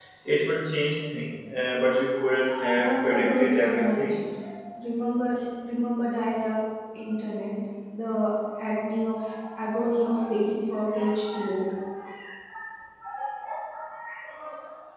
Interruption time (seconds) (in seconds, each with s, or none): 2.8 s